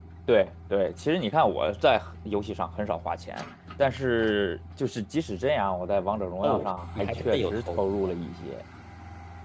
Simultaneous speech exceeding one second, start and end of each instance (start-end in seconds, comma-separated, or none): 6.4-8.0